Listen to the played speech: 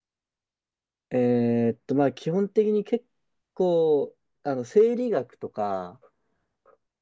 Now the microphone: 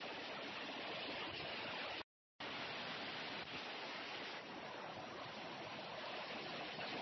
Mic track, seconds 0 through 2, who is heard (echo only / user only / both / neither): neither